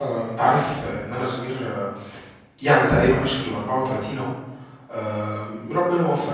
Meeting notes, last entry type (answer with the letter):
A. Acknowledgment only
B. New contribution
A